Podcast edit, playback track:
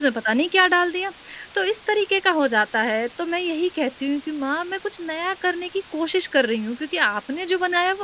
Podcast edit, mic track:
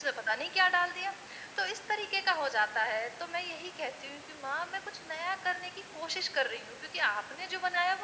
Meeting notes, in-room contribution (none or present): none